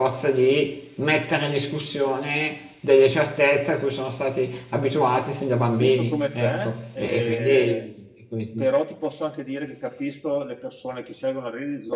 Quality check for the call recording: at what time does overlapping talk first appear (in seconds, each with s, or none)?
5.8 s